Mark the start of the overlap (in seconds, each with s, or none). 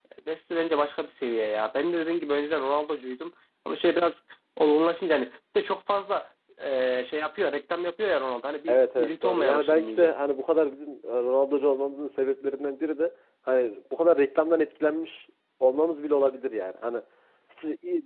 8.7 s